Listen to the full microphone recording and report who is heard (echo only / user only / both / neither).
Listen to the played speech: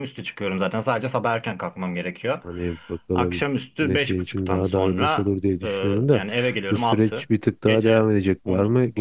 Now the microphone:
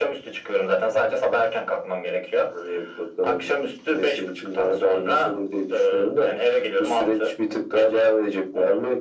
echo only